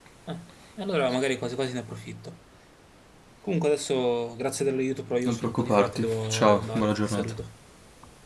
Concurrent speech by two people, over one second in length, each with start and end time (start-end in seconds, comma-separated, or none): 5.2-7.3